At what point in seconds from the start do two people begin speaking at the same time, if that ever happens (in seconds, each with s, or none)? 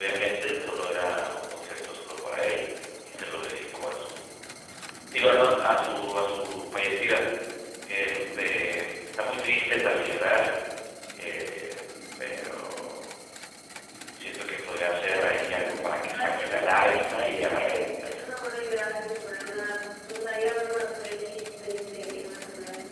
16.1 s